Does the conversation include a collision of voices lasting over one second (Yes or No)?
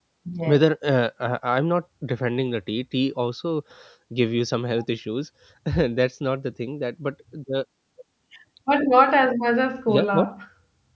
No